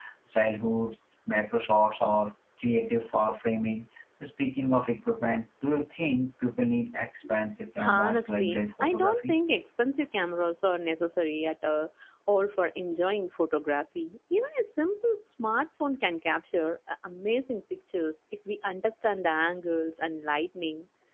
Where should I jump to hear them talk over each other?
7.8 s

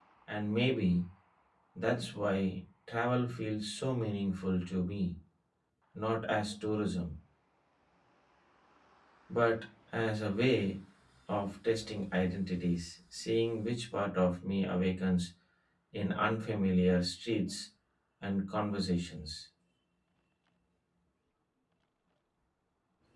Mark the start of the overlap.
none

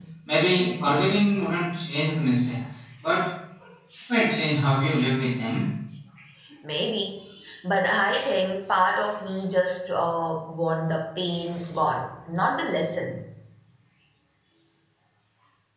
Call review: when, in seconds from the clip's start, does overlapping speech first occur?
none

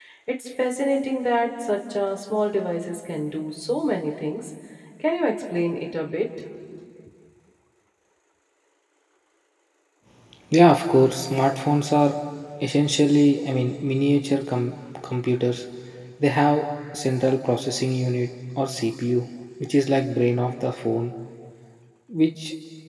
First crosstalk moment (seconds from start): none

